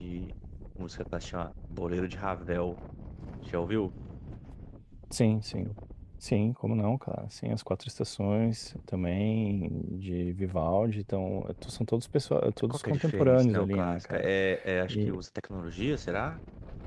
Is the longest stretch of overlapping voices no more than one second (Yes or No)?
No